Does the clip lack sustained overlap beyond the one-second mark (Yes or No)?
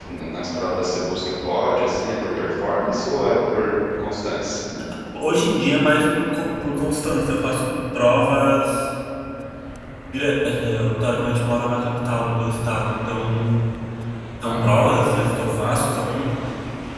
Yes